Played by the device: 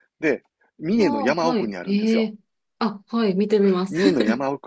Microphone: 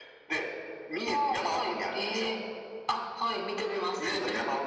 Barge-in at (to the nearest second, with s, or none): none